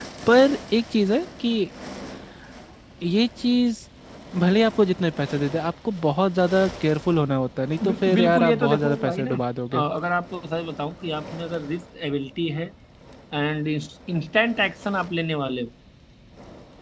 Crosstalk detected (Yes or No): Yes